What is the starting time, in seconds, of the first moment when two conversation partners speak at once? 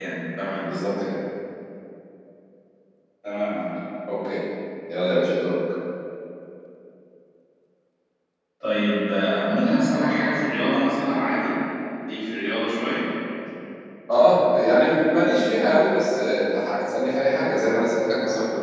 none

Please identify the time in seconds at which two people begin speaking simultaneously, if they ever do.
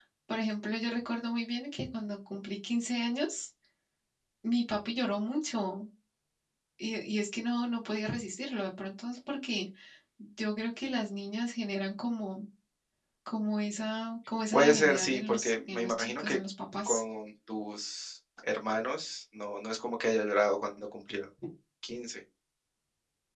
14.5 s

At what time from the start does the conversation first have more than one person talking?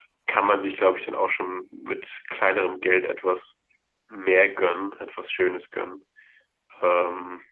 none

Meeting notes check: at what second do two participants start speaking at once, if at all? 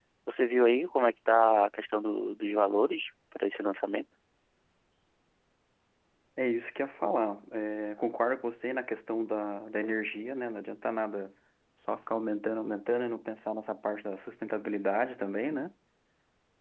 none

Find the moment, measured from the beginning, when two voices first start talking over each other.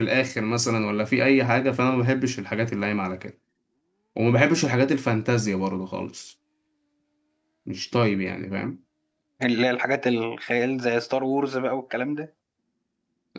none

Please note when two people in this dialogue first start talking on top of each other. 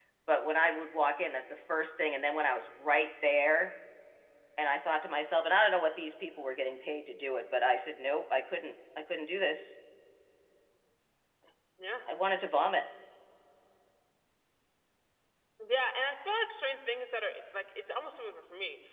none

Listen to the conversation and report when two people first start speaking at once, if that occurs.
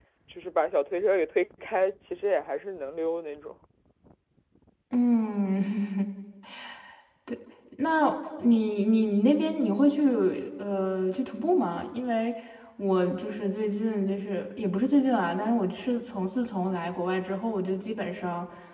none

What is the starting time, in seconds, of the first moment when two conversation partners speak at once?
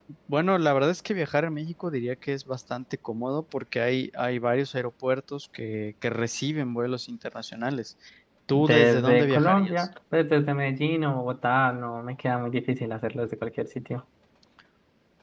8.5 s

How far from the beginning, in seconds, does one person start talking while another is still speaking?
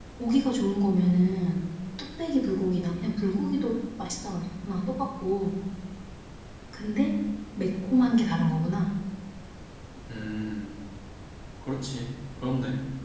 none

